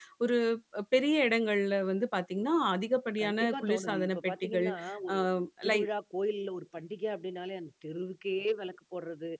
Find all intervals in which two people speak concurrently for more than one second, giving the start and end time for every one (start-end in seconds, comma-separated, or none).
3.2-4.7